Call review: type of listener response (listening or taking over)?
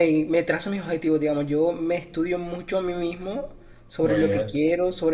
listening